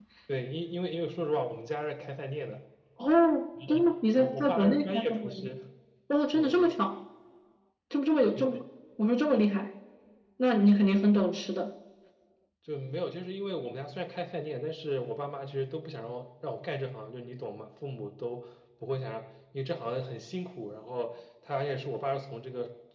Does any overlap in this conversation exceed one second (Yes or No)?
Yes